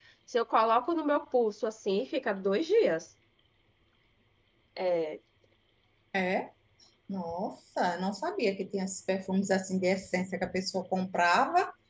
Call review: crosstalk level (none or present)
none